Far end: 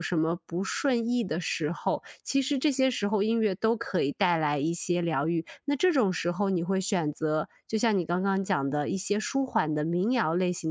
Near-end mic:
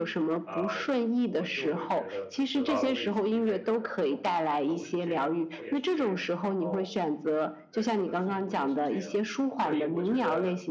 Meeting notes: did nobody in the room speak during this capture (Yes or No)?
No